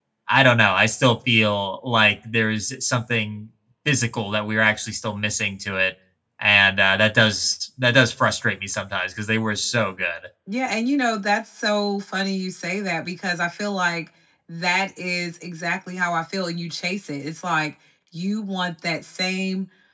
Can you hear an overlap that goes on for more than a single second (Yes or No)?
No